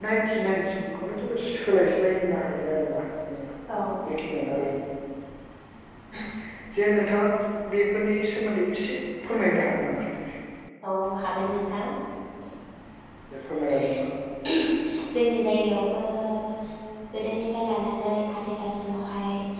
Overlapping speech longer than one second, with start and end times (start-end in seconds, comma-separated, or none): none